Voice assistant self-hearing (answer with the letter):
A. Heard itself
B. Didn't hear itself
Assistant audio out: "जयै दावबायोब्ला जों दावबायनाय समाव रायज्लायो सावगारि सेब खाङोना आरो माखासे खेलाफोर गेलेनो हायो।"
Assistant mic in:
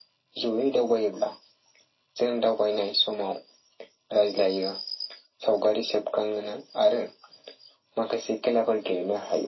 A